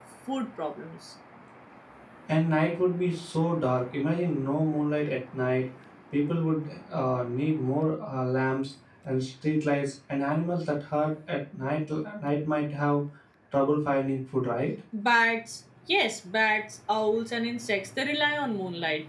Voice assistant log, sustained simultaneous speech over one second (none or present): none